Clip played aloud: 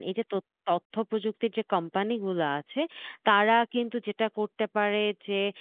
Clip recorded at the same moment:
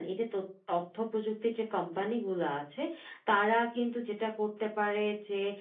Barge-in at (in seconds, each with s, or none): none